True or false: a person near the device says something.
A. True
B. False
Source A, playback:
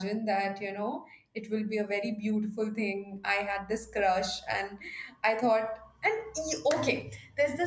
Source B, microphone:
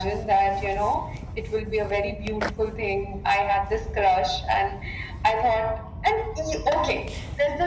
B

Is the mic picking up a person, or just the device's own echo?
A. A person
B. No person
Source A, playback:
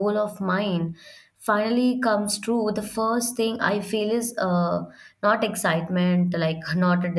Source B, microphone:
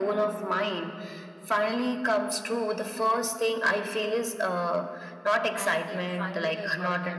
A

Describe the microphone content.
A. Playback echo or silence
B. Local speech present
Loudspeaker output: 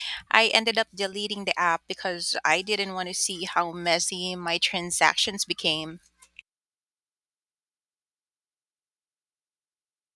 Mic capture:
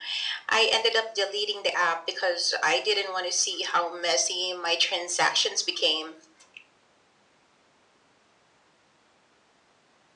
A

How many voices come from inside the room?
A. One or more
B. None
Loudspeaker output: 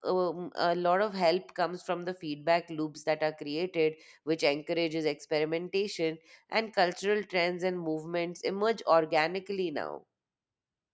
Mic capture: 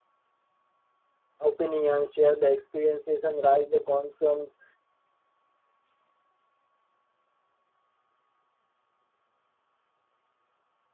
A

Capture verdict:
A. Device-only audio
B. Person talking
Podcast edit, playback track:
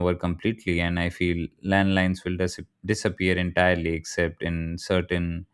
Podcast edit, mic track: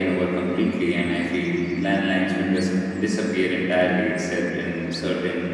A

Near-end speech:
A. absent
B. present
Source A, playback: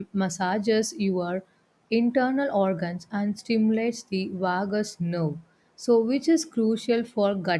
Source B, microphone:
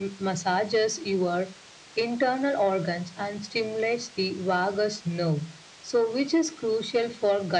A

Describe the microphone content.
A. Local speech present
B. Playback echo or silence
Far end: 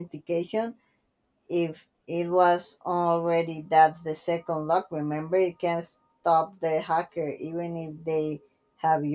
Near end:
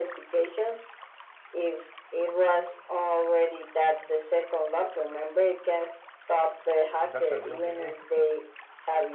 A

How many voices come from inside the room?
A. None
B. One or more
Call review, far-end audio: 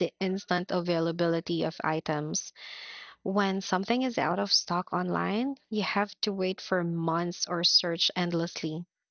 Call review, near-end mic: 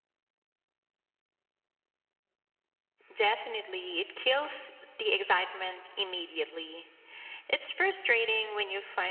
B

